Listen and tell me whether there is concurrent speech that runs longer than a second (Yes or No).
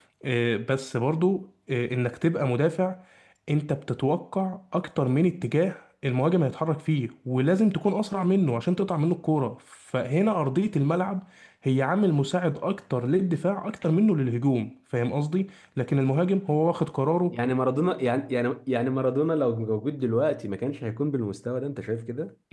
No